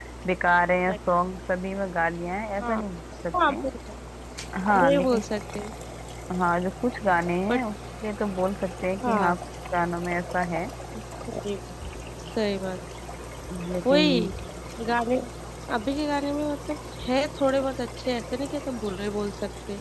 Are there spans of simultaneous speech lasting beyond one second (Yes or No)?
No